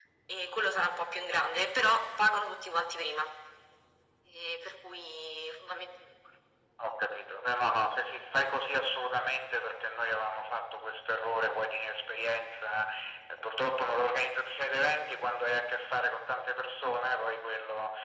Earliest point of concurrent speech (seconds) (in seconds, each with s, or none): none